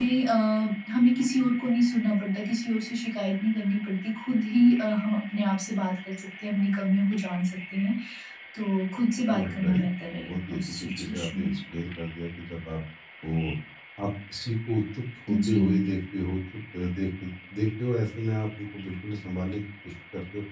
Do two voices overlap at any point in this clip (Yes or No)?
Yes